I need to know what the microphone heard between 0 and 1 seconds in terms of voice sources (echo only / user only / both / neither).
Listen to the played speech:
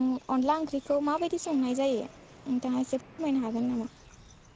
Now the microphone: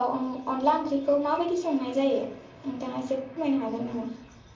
echo only